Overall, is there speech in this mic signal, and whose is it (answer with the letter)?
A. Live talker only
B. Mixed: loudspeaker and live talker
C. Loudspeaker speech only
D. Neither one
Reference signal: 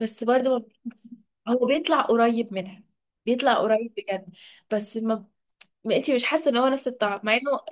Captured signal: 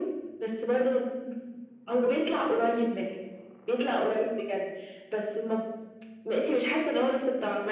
C